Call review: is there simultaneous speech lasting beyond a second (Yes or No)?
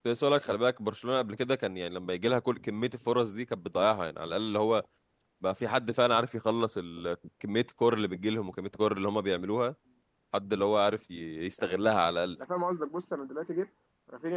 No